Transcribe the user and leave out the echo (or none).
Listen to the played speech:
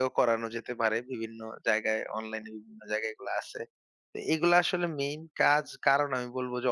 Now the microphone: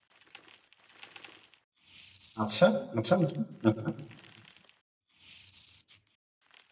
আচ্ছা, আচ্ছা, আচ্ছা, আচ্ছা।